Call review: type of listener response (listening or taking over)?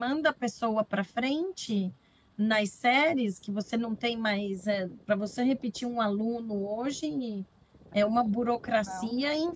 listening